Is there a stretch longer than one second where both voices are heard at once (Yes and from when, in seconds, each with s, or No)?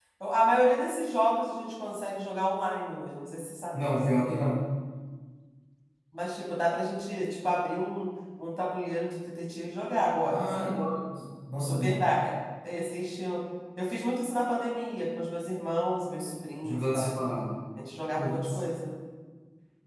No